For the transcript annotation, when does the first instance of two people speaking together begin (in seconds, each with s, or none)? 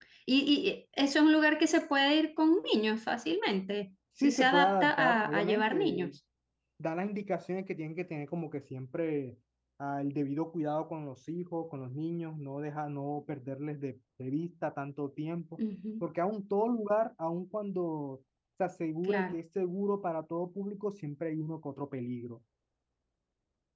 4.2 s